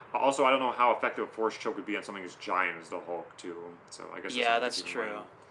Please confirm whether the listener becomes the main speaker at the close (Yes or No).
Yes